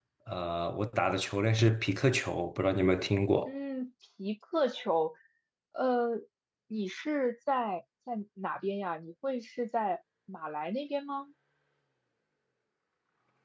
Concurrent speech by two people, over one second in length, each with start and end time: none

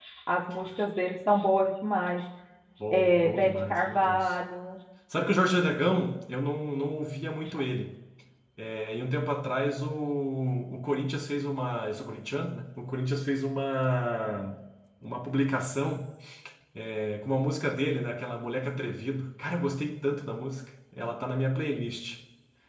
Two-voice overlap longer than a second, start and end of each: 2.9-4.2

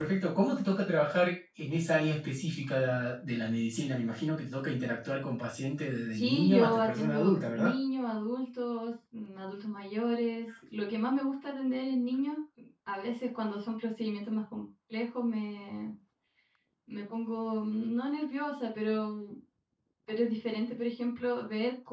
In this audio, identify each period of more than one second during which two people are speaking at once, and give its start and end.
6.1-7.7

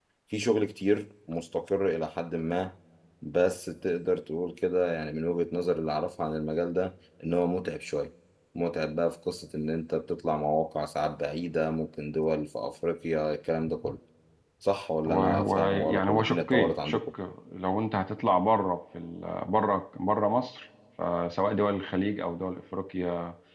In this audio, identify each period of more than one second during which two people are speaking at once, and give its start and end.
15.1-17.1

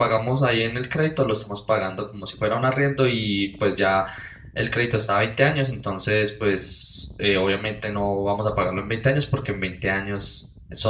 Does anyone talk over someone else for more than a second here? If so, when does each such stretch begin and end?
none

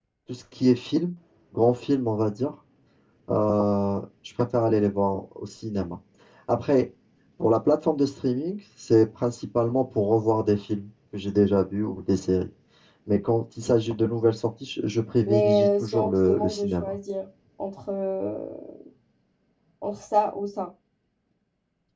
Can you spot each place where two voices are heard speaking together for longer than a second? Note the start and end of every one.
15.3-17.0

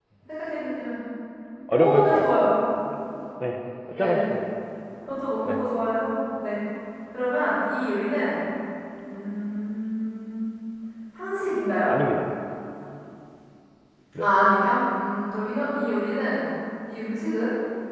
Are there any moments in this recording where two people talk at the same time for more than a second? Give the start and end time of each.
none

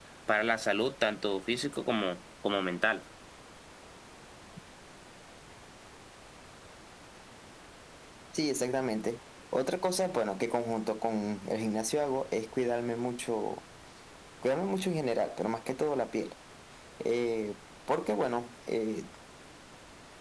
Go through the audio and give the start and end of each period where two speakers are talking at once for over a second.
none

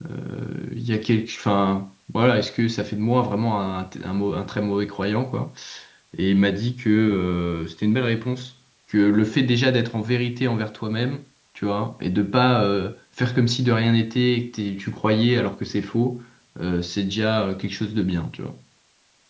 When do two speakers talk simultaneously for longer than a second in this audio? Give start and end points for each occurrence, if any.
none

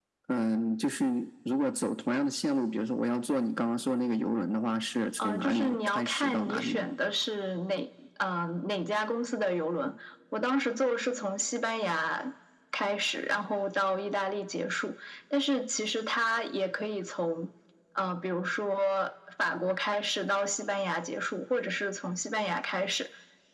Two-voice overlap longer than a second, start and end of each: 5.2-6.9

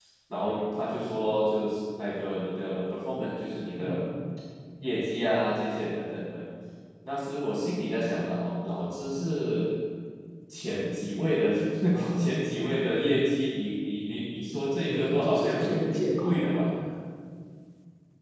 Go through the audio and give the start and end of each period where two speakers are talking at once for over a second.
14.9-16.7

